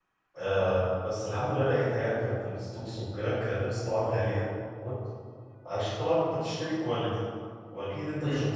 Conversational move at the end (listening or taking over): listening